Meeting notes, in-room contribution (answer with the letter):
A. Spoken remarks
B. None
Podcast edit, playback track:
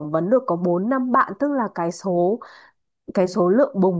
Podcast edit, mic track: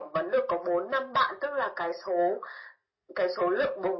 B